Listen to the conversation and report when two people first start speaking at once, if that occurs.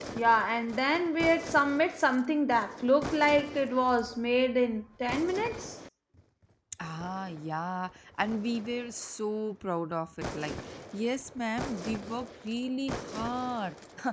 none

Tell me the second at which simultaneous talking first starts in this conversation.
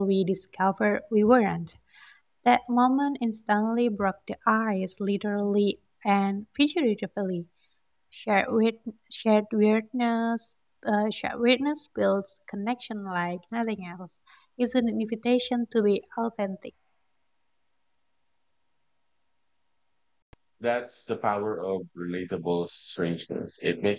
none

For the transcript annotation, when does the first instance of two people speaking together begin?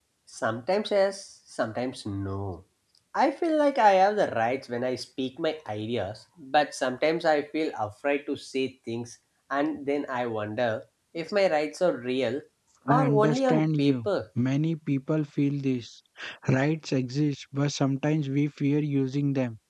12.9 s

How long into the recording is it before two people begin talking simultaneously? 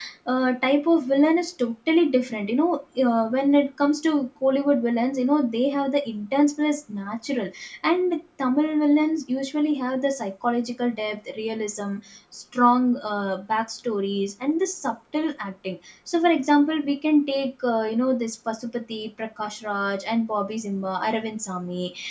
none

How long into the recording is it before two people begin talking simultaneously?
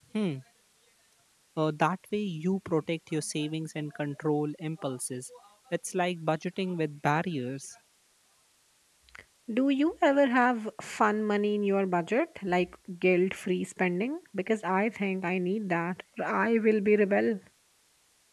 none

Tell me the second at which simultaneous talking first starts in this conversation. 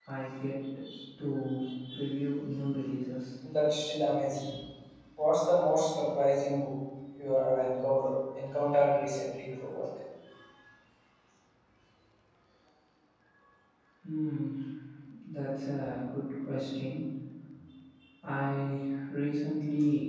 none

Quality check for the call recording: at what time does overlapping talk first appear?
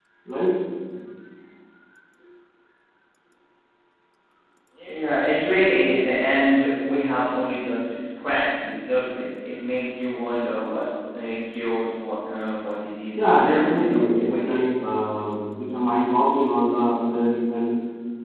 13.2 s

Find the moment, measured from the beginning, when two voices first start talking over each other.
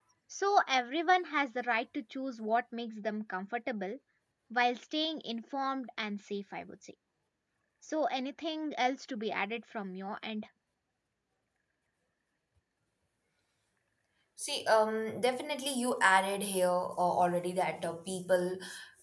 none

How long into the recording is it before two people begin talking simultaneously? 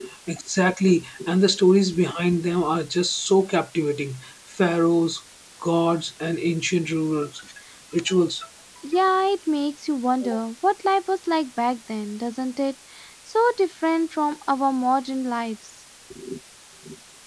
none

